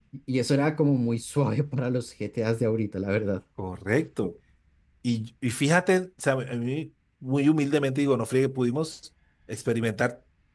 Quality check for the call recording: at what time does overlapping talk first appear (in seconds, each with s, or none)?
none